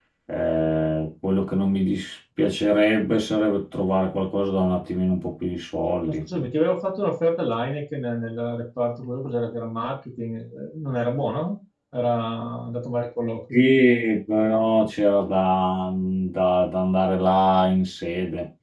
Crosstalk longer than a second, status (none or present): none